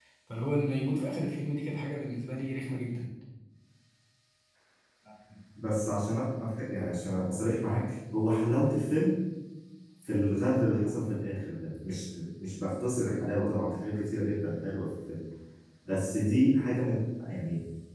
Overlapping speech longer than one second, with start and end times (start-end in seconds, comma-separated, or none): none